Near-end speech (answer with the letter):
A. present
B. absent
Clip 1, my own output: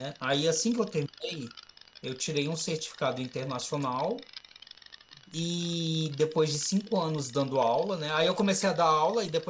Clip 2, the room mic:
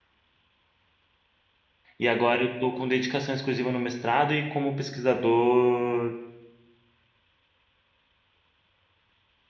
A